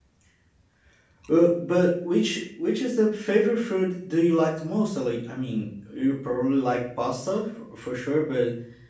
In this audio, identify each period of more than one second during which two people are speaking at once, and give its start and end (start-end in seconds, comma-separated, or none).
none